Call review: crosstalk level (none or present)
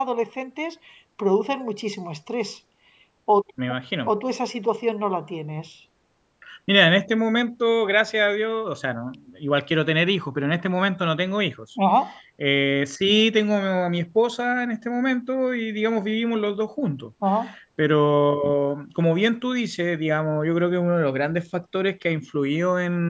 none